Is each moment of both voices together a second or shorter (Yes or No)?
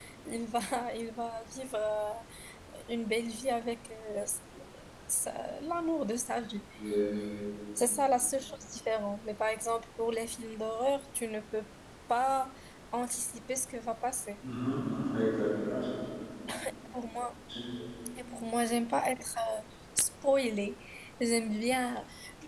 Yes